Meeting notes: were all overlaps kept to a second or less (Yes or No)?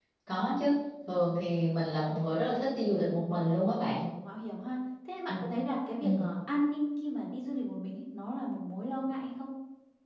Yes